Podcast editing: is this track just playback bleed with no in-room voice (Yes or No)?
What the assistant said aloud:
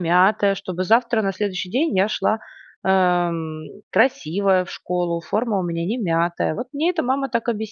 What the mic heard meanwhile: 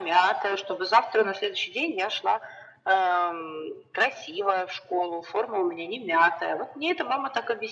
Yes